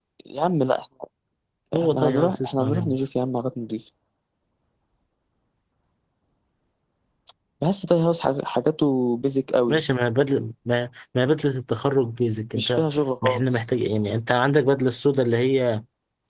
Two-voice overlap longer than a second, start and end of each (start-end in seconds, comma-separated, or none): 1.8-3.0